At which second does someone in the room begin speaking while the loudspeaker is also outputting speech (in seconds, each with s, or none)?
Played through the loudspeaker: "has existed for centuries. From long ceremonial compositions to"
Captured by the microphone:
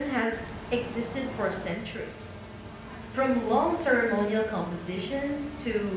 none